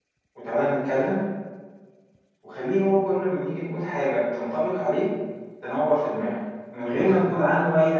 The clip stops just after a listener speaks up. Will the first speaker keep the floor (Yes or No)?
Yes